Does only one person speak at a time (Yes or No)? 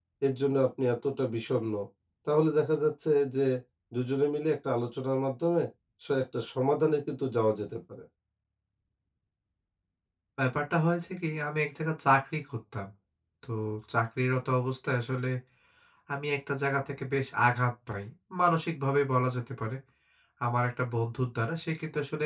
Yes